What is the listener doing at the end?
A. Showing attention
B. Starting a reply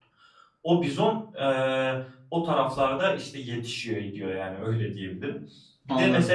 A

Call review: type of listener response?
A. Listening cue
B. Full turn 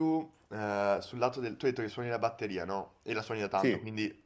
A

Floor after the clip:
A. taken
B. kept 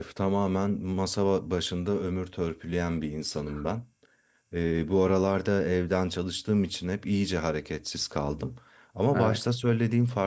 B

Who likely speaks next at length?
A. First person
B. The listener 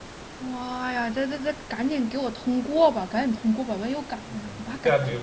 B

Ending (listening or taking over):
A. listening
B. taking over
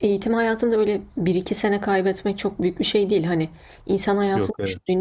A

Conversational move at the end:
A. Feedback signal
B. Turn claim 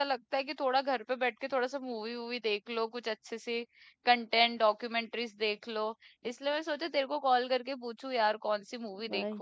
B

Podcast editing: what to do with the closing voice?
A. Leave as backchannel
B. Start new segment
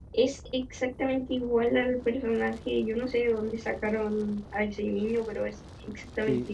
B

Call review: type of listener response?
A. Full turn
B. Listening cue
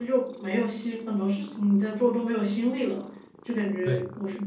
B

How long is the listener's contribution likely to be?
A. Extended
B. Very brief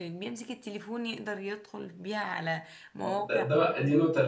A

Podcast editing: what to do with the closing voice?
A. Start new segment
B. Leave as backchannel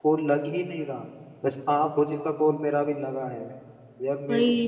B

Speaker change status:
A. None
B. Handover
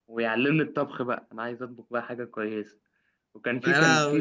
A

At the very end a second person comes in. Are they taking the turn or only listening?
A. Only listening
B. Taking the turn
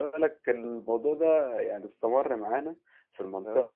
A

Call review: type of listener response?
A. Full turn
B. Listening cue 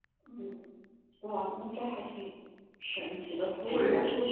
B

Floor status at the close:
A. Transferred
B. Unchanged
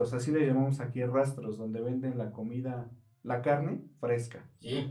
A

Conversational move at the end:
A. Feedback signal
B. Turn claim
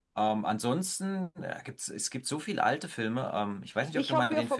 B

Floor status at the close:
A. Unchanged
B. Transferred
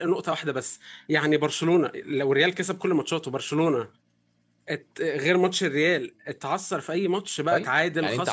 B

